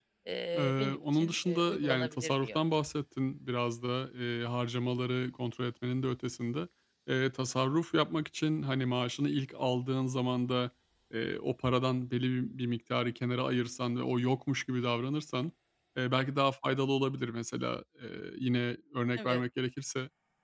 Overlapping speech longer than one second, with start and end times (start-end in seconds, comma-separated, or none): 0.6-2.6